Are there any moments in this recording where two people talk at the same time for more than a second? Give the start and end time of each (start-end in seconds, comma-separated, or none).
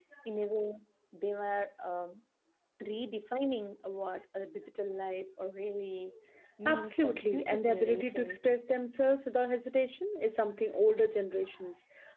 6.6-8.4